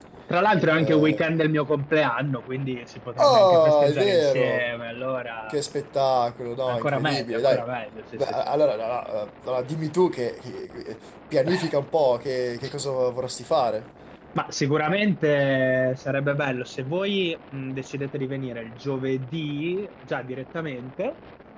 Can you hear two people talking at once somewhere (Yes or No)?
Yes